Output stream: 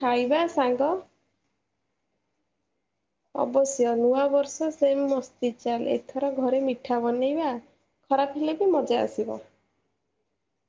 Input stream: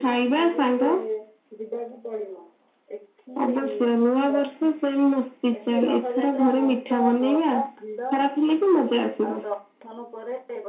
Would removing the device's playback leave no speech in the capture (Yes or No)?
No